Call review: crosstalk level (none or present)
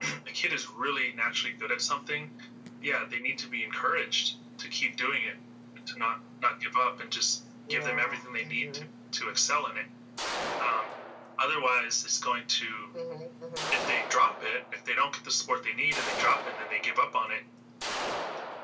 present